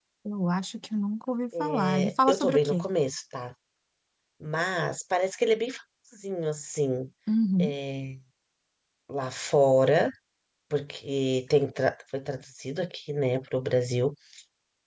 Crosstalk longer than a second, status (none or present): present